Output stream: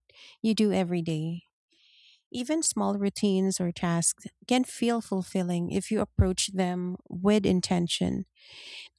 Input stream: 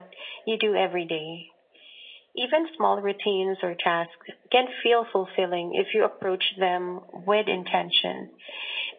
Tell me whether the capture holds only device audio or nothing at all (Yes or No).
Yes